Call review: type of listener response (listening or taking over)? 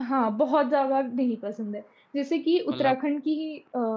listening